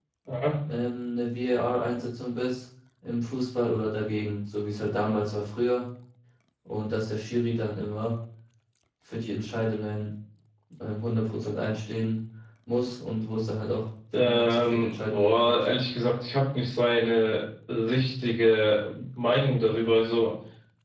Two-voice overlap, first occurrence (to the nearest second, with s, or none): 14 s